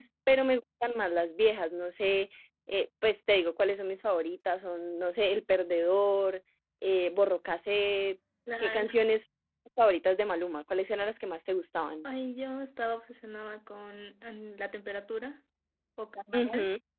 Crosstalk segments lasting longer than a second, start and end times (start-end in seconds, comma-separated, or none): none